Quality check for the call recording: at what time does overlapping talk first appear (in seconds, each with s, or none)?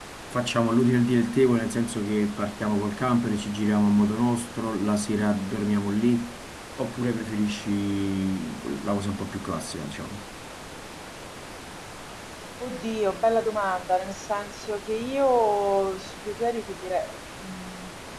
none